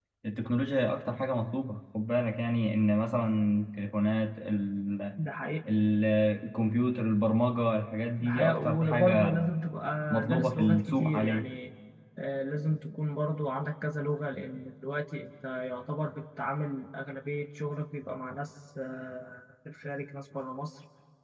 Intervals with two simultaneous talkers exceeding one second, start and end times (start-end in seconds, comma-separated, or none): 8.2-9.4, 10.2-11.5